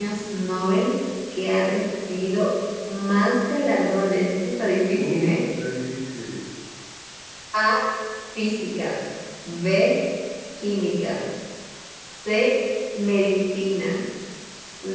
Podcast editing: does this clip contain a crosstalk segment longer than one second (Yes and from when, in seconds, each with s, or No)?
No